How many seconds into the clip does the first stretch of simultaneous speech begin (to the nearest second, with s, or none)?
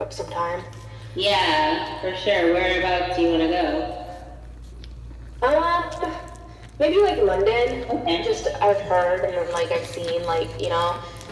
none